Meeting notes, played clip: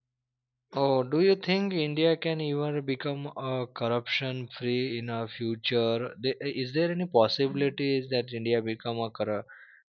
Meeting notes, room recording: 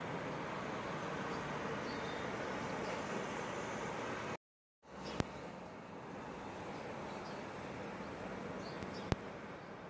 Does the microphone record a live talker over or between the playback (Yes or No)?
No